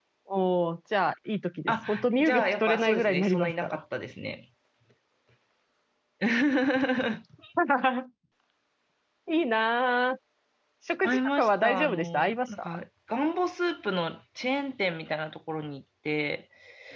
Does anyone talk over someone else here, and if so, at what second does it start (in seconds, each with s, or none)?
1.7 s